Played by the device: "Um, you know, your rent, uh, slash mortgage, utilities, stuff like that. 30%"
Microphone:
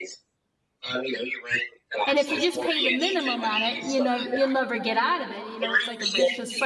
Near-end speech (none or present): present